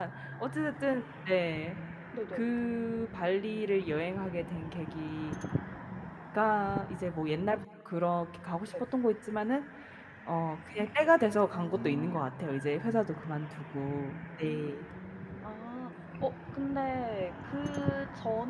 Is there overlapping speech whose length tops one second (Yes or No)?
No